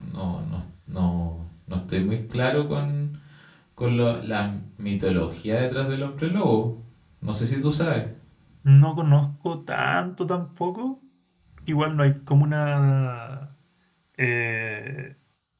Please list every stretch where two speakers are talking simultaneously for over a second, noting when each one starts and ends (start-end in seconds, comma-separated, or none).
none